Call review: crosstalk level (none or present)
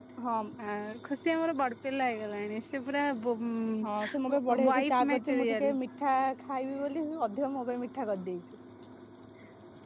present